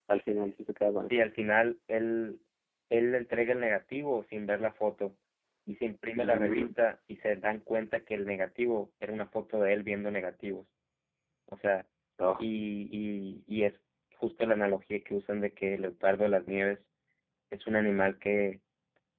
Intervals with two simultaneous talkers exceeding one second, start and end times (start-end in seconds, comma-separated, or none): none